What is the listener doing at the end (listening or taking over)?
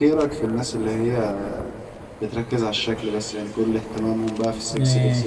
listening